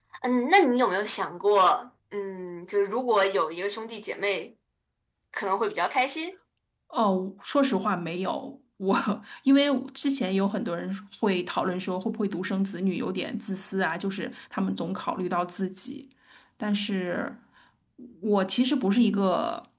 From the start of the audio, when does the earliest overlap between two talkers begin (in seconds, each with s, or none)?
none